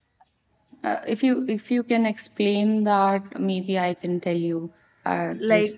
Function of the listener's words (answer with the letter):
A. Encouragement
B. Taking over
B